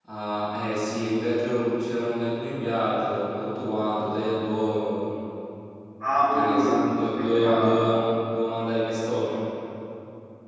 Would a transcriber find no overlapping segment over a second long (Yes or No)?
No